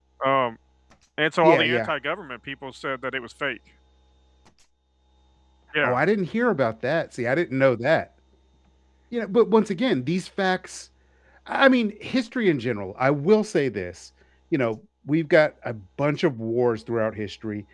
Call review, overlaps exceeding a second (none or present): none